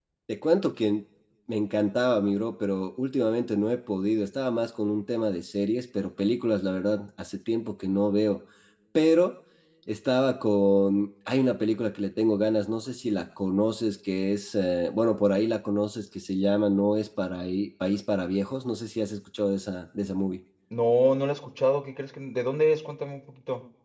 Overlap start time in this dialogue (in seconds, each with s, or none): none